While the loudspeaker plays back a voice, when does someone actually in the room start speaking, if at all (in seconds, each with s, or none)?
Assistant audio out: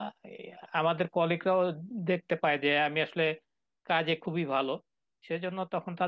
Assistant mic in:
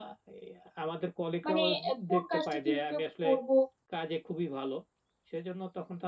1.5 s